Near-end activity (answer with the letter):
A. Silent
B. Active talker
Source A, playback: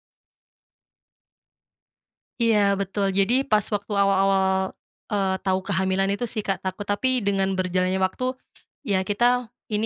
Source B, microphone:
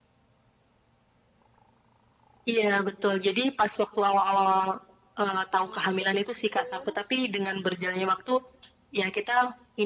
B